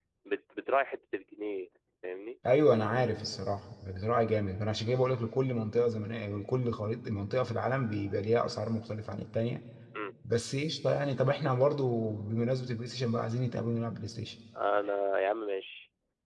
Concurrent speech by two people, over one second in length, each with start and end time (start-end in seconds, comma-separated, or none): none